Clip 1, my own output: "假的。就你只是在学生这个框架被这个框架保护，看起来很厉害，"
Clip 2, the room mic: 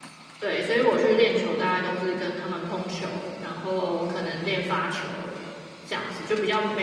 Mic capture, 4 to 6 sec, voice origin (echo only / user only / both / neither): user only